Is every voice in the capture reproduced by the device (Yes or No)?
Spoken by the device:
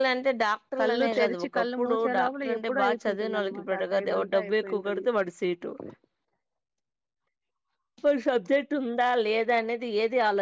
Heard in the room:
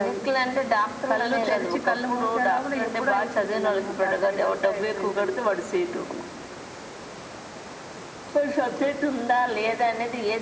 Yes